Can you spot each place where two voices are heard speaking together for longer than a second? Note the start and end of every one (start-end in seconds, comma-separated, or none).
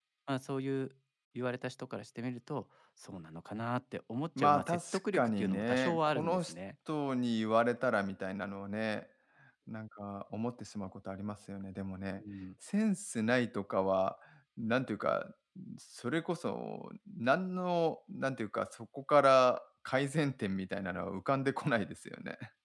4.4-6.5